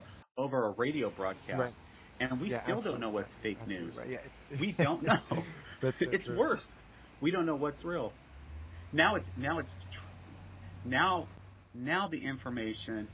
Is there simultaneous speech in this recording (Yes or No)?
Yes